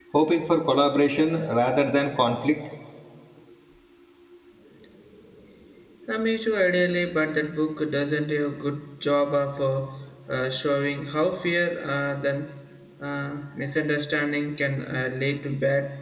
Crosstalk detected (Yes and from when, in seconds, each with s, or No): No